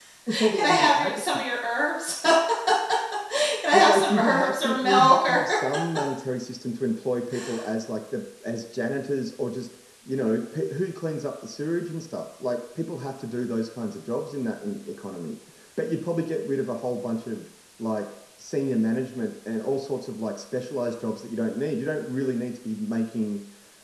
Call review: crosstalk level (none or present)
present